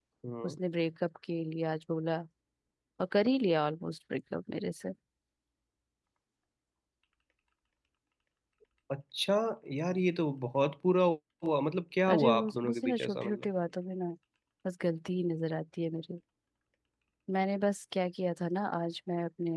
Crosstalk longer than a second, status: present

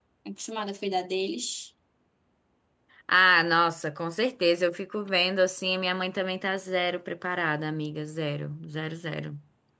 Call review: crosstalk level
none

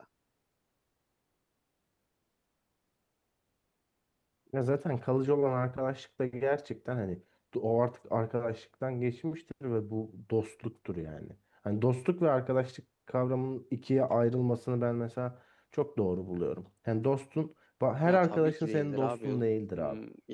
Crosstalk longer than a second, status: present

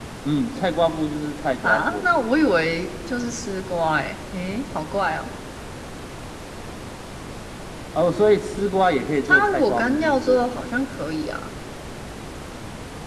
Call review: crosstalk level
present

